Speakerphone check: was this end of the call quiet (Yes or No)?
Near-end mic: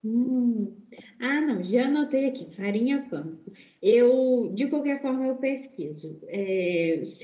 Yes